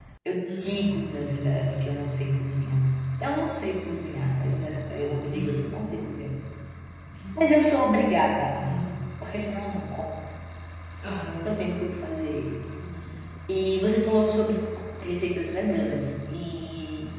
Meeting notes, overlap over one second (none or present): none